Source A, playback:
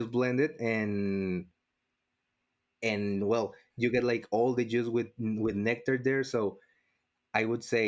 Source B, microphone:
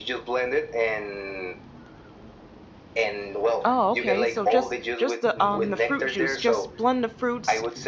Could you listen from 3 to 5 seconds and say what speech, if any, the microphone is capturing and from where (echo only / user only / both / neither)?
both